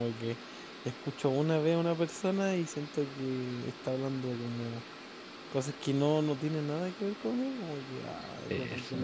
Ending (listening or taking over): listening